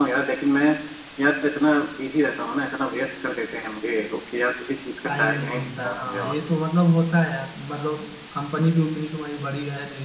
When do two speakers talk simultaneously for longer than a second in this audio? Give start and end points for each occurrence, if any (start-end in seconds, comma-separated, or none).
5.0-6.4